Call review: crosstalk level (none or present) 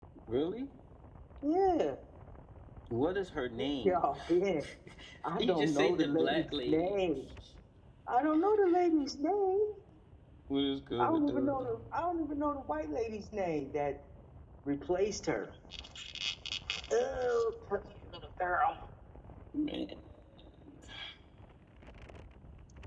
present